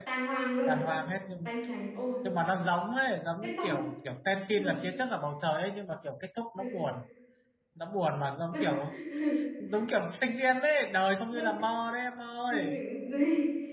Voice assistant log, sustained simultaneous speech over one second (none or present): none